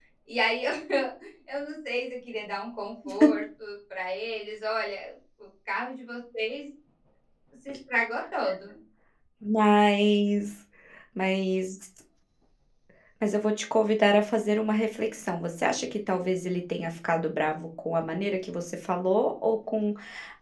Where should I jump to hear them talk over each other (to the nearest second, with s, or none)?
none